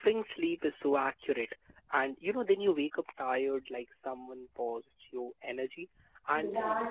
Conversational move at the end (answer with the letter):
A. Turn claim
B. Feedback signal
B